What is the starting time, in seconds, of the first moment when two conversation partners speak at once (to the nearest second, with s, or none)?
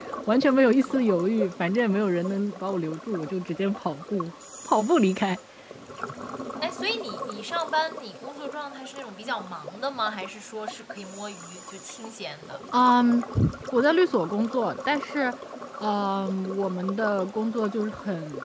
none